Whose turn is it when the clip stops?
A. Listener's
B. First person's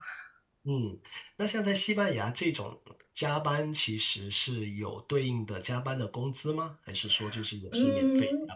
A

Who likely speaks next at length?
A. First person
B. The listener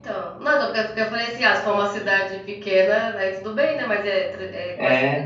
A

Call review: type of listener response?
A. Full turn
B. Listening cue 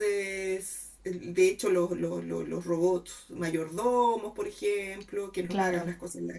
B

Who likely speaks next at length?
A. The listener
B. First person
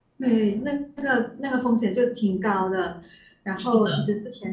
B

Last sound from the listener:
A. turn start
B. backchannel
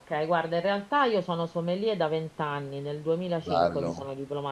B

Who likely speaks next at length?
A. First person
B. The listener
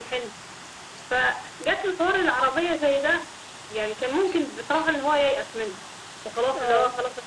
A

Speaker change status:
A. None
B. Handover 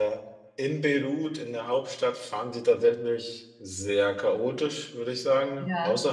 A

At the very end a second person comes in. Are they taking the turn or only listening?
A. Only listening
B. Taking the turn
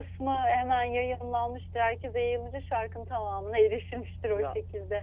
B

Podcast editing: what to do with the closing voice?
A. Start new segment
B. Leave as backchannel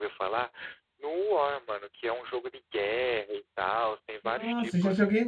A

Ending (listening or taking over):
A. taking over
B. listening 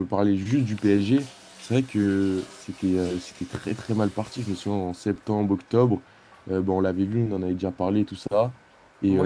A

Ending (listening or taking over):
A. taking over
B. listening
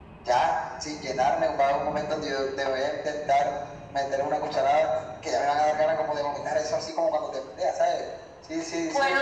A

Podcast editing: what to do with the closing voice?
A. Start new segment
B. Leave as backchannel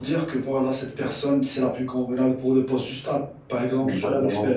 B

